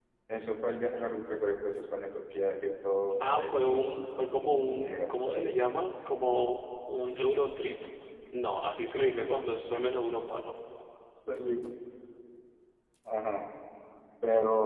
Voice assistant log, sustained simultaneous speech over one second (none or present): present